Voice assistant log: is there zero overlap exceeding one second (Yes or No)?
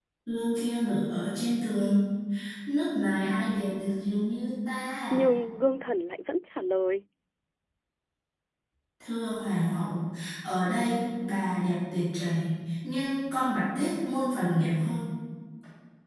Yes